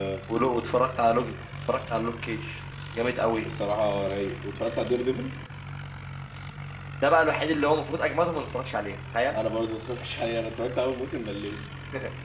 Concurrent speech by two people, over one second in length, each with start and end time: none

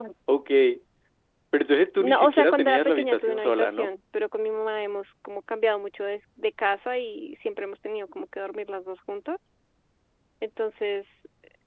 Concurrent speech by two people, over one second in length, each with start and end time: 2.0-3.9

